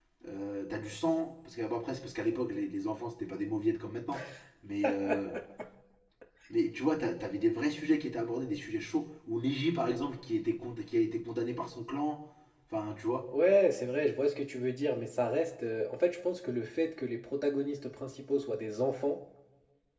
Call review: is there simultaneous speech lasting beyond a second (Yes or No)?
No